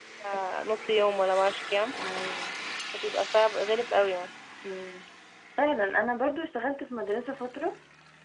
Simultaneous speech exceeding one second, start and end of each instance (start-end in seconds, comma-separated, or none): none